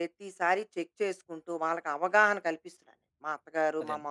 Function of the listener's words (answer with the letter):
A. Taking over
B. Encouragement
B